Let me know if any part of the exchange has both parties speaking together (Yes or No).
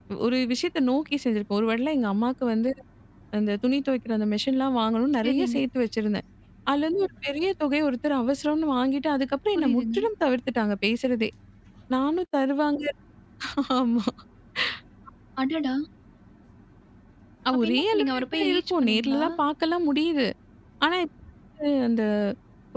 Yes